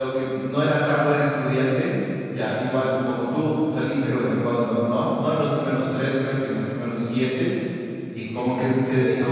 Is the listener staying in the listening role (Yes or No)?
Yes